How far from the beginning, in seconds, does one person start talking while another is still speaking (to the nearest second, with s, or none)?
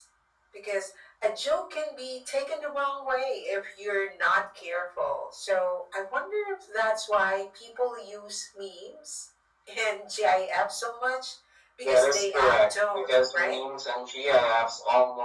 12 s